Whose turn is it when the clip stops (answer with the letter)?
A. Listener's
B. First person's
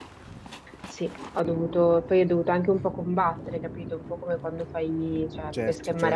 B